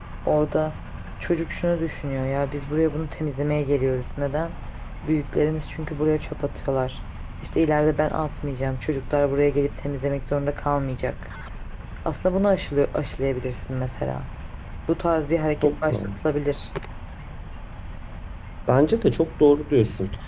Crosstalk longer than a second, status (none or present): none